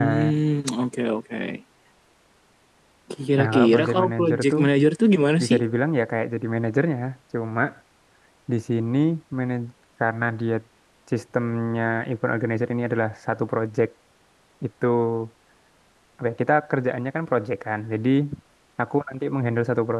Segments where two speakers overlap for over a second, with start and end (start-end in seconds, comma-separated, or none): 3.4-4.6